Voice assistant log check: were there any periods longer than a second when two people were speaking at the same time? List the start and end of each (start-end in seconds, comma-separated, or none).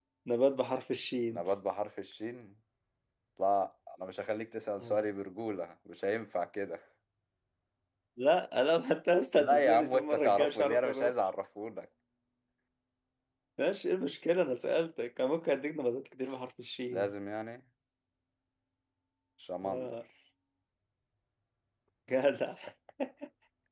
9.3-11.1